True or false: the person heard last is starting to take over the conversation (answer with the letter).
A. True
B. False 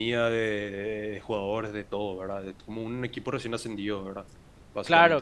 A